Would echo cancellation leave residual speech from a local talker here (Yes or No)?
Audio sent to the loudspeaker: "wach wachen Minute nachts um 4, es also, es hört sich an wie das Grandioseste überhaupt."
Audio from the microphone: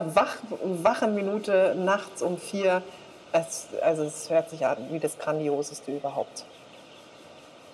No